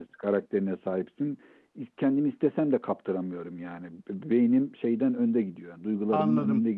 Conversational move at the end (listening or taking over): taking over